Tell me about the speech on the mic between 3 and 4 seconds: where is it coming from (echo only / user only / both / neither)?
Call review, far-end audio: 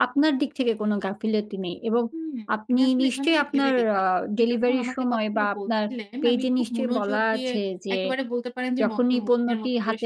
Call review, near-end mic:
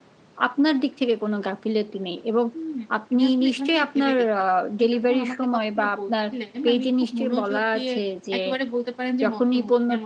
echo only